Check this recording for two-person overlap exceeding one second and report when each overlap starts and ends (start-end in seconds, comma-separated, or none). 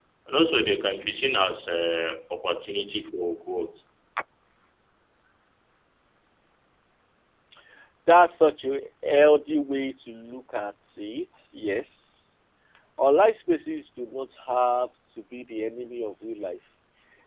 none